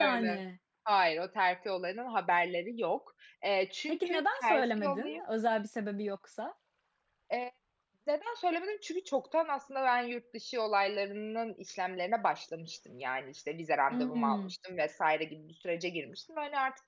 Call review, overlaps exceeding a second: present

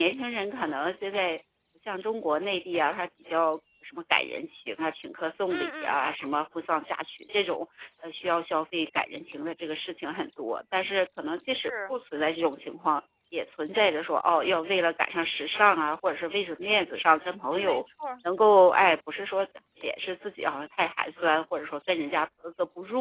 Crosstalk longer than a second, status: none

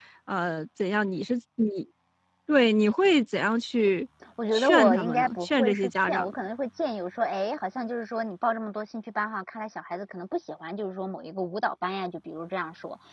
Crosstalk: present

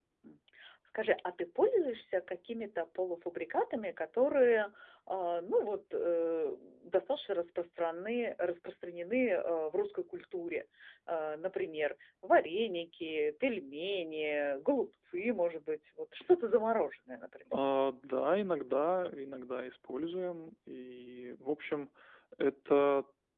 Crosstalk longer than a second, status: none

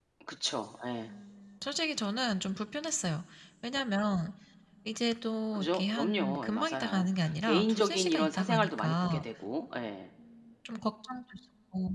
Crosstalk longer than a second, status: present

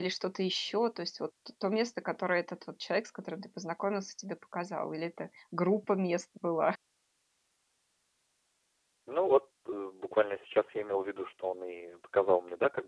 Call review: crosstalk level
none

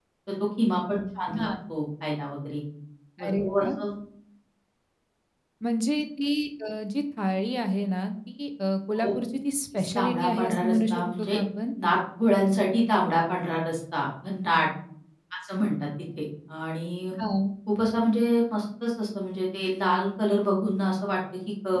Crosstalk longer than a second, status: present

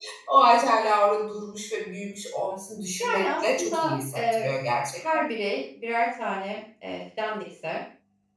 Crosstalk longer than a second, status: present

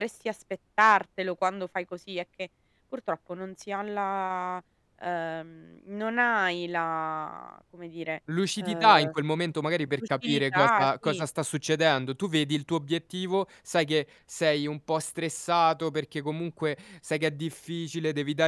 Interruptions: present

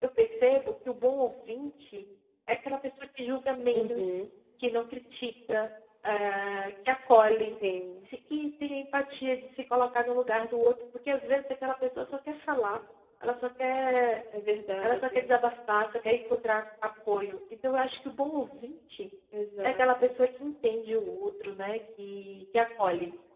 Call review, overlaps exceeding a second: none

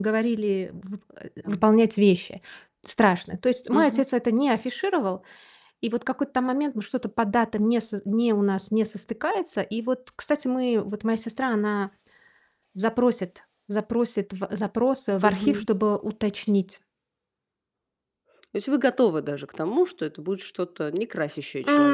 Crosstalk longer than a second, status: none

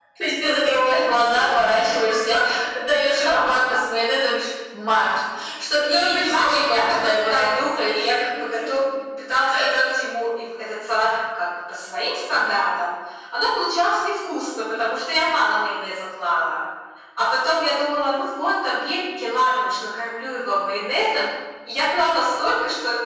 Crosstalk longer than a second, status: present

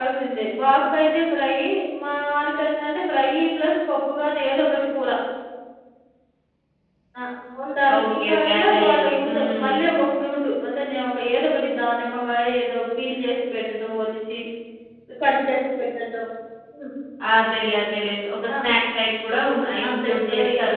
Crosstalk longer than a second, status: present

